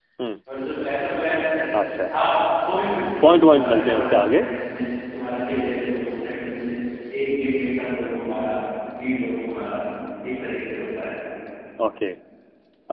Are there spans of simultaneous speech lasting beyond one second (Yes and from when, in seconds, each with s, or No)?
Yes, from 3.2 s